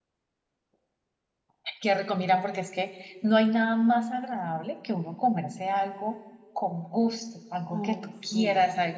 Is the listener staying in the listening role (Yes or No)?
Yes